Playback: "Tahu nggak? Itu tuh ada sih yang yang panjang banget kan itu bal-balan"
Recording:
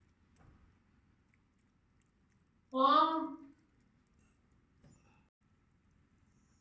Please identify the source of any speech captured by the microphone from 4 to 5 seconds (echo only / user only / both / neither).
neither